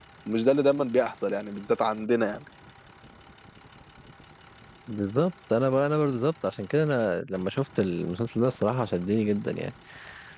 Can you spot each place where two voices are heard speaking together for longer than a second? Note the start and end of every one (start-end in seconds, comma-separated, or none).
none